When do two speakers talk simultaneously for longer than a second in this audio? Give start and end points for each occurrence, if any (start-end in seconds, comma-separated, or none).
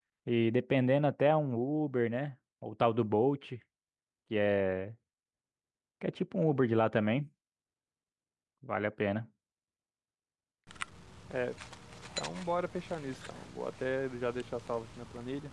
none